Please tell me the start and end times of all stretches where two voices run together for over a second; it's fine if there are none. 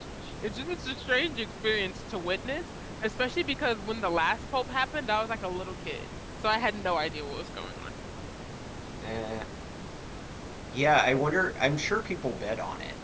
none

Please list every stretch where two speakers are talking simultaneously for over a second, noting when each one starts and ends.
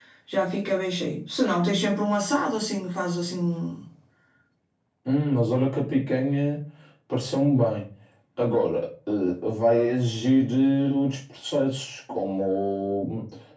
none

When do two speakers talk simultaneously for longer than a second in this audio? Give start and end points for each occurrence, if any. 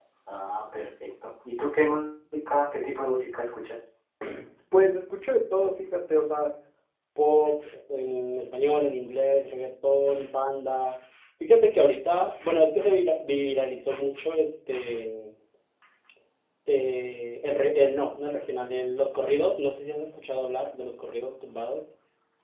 none

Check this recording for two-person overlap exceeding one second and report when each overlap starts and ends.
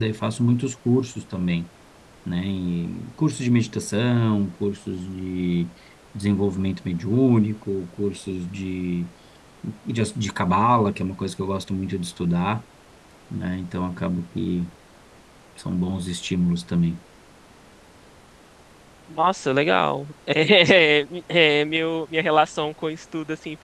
none

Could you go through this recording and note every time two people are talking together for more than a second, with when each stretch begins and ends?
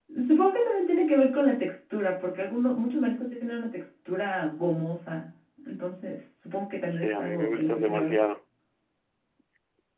6.9-8.2

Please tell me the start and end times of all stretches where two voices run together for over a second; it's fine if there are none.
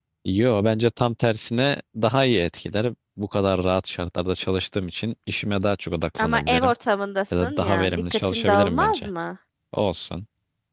7.3-9.1

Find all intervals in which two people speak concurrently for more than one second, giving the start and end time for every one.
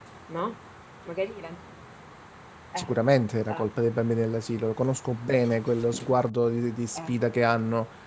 none

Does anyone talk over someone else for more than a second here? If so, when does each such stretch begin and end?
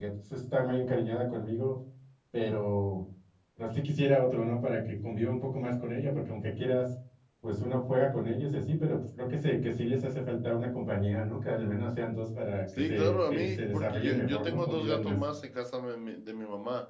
12.8-15.2

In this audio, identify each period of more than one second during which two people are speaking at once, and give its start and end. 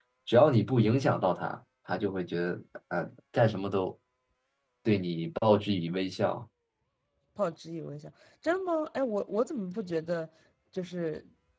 none

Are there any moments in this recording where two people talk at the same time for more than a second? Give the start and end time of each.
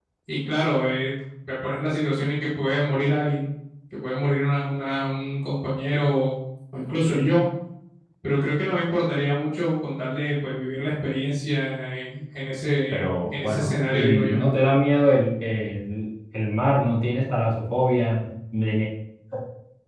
12.9-14.4

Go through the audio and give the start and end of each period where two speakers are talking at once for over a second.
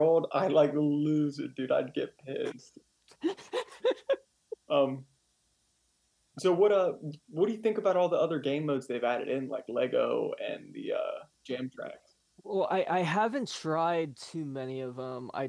none

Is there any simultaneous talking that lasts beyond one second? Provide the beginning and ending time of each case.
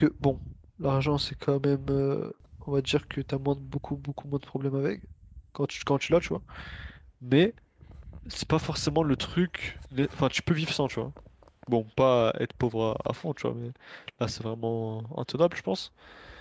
none

